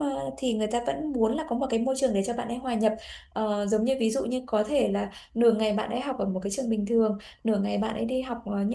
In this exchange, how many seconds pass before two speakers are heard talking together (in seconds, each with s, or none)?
none